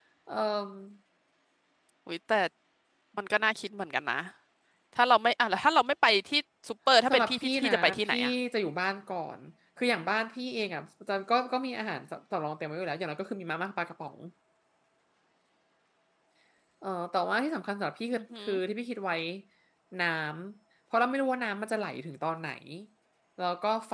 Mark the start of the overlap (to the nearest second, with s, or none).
7 s